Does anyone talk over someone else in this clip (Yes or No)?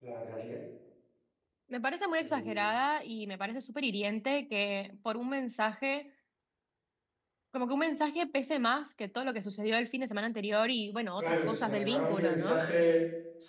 Yes